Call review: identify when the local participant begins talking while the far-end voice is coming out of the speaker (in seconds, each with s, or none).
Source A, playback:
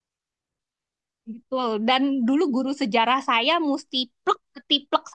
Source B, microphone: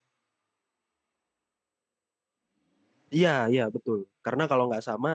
3.1 s